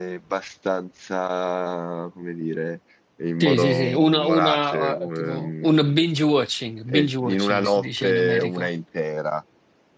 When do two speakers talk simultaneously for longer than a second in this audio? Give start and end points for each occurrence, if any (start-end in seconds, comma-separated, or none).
3.4-5.9, 6.9-8.7